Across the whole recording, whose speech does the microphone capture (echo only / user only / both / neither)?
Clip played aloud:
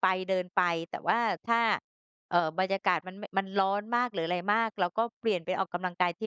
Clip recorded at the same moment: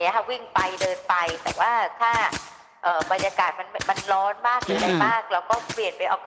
both